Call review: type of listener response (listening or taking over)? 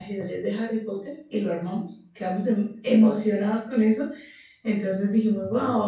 listening